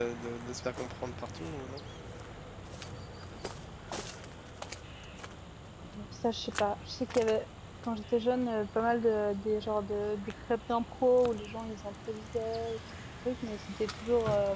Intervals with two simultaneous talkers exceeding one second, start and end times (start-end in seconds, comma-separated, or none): none